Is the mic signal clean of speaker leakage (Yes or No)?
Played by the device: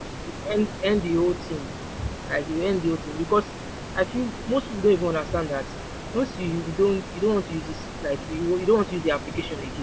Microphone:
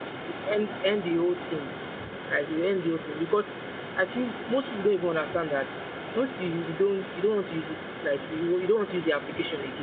No